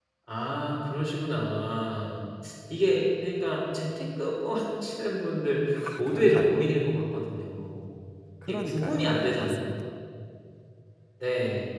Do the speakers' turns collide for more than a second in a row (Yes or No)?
Yes